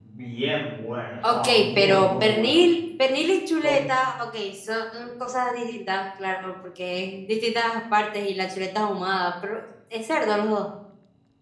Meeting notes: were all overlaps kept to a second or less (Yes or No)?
No